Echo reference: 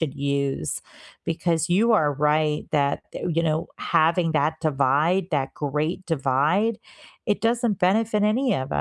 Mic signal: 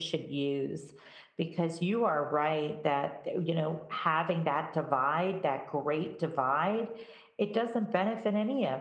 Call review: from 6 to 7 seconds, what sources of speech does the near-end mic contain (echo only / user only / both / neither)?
echo only